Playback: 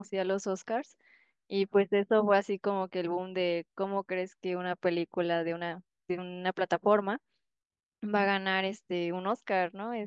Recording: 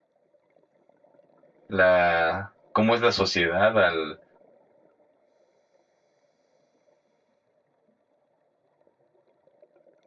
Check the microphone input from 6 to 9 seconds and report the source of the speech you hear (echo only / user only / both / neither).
neither